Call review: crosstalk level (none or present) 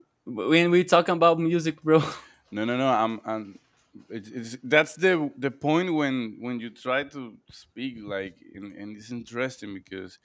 none